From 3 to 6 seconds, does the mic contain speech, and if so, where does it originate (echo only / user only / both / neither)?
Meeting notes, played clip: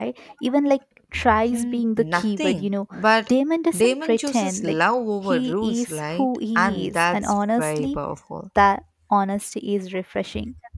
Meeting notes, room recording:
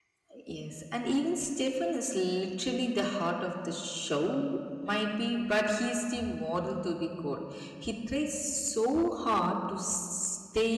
user only